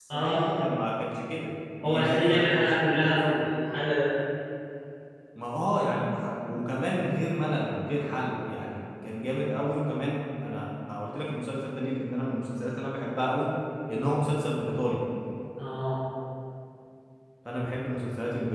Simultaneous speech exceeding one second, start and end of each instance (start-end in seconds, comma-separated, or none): 1.8-3.4